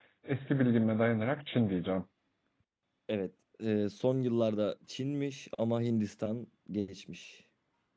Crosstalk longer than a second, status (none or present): none